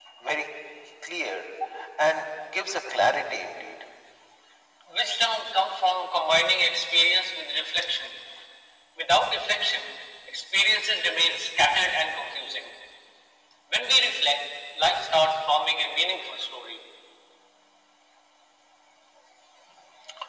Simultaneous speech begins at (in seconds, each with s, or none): none